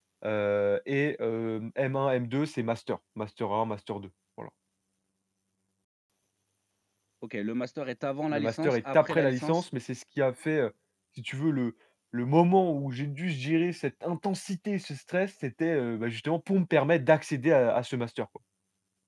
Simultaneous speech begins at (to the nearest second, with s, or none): 8 s